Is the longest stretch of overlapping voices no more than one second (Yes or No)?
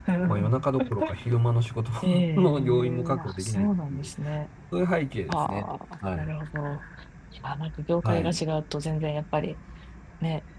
No